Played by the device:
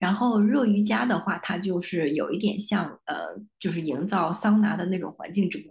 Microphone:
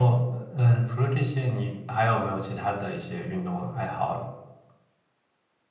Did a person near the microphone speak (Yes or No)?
Yes